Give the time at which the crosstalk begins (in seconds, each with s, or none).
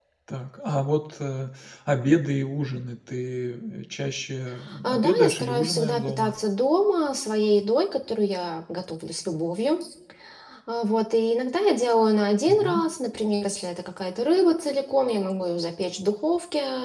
4.8 s